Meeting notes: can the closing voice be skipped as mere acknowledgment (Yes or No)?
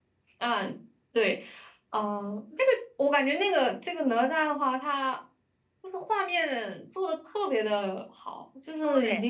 Yes